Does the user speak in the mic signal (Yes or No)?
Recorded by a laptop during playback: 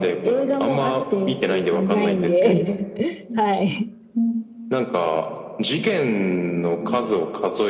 Yes